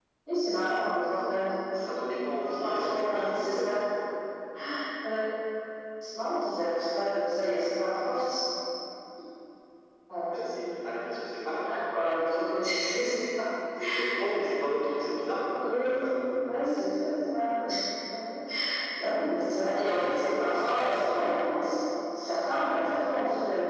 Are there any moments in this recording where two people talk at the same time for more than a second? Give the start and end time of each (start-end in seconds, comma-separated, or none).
2.4-3.8